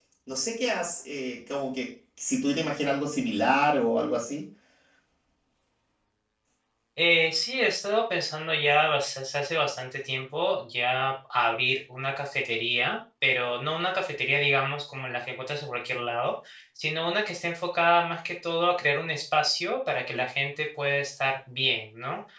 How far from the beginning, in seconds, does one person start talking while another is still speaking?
none

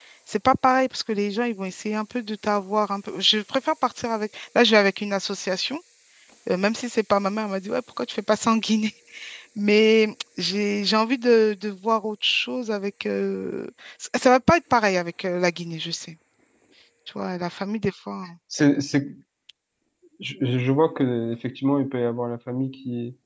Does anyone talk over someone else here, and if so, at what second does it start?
none

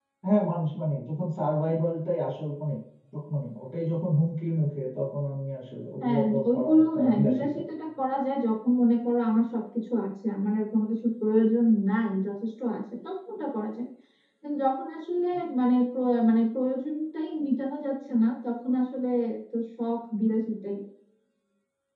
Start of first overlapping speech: 6.0 s

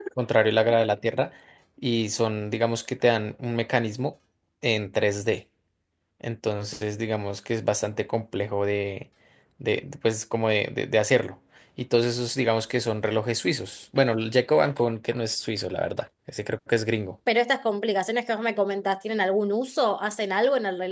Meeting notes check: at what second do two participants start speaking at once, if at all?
none

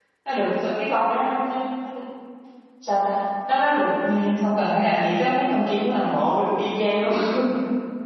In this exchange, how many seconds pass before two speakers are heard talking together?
none

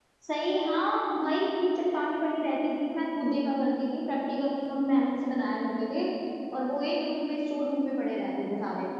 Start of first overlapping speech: none

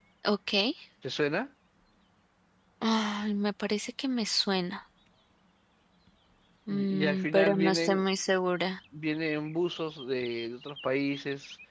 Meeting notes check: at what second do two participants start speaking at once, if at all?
6.7 s

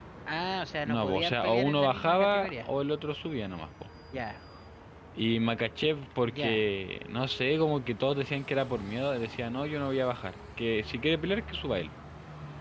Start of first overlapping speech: 0.8 s

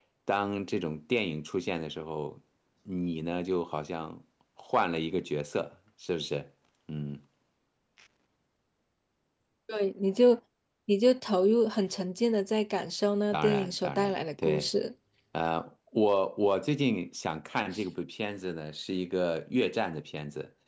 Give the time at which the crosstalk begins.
13.3 s

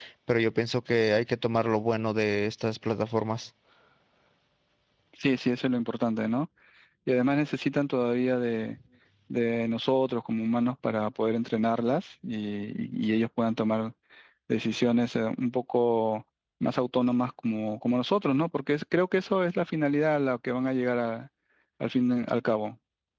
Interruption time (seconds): none

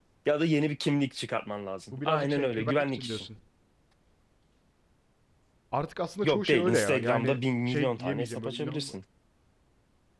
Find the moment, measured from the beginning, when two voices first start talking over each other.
1.9 s

